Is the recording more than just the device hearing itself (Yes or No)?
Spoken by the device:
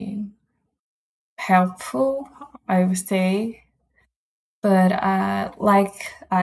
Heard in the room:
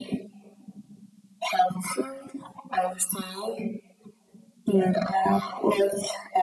No